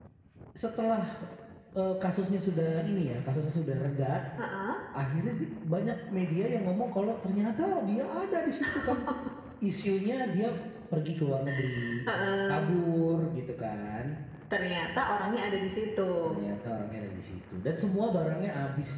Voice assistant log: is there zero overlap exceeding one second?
Yes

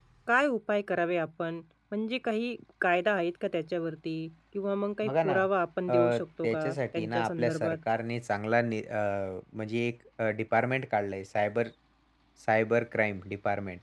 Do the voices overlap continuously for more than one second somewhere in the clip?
Yes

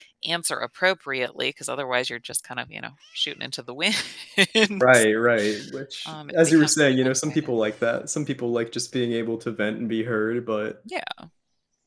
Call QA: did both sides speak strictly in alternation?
No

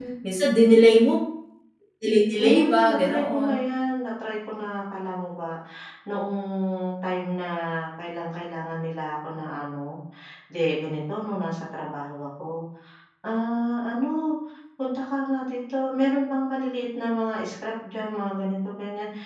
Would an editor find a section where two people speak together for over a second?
Yes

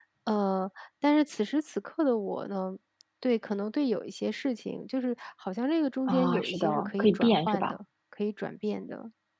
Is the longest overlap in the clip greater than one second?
Yes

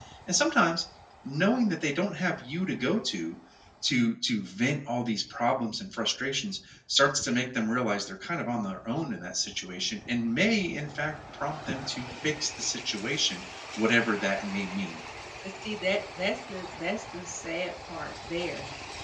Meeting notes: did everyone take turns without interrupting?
Yes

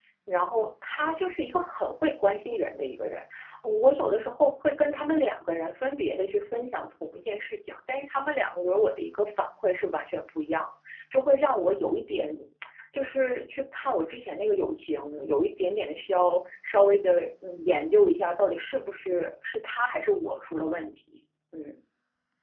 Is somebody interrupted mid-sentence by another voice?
No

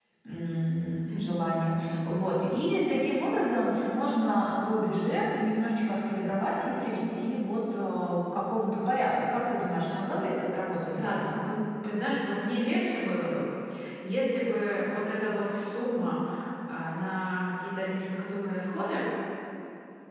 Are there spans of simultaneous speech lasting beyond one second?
No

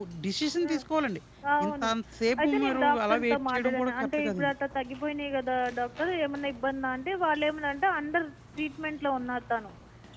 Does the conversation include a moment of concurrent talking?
Yes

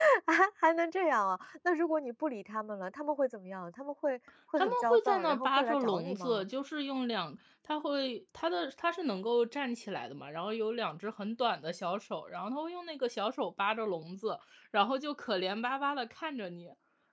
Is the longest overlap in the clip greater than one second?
Yes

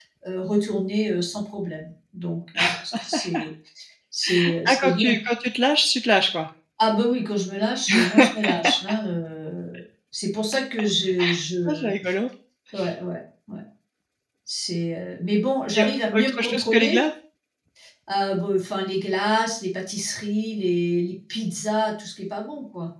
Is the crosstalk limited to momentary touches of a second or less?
No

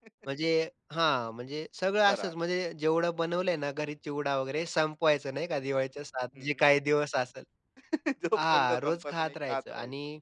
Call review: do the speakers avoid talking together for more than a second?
No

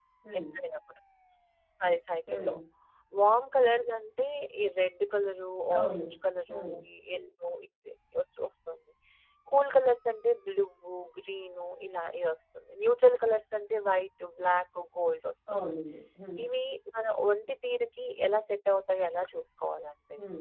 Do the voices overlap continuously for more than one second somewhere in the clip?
No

